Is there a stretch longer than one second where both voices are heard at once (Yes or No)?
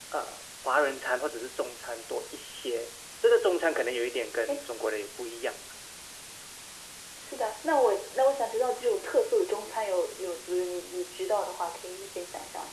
No